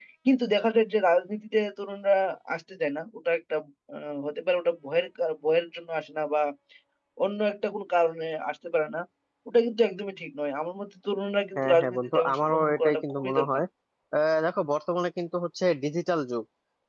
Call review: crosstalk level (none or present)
present